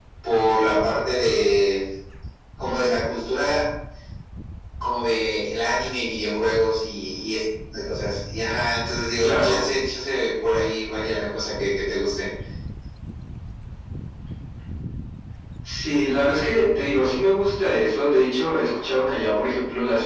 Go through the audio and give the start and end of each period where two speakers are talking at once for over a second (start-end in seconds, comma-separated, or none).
none